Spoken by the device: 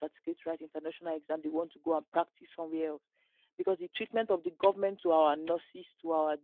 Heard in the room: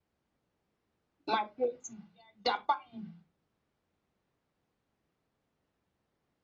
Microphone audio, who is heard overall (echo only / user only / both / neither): user only